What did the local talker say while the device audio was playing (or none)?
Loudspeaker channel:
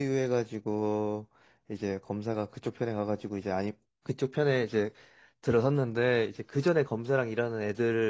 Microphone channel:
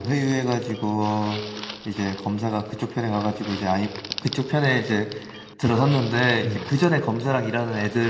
음.